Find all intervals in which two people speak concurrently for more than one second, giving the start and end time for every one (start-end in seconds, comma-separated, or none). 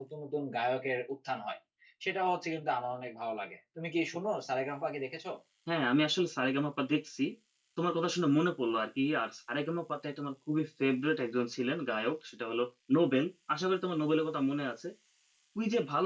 none